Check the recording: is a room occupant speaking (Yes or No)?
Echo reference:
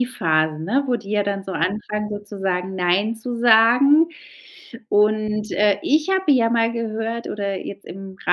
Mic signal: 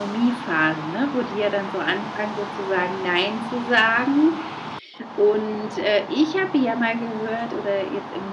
No